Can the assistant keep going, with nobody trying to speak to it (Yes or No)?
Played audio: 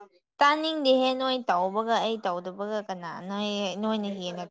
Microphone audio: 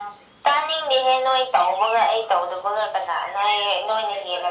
Yes